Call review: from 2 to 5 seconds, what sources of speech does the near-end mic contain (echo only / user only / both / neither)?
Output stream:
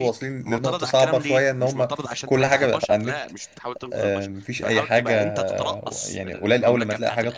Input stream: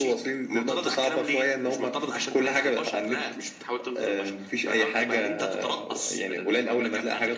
echo only